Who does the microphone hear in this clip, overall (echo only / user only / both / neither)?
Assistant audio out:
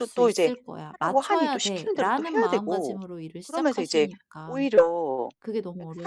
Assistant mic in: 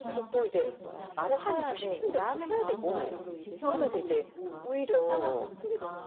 both